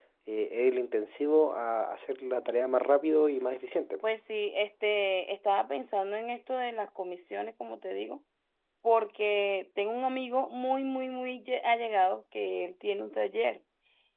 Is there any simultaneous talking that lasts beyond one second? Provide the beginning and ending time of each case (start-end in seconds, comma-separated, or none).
none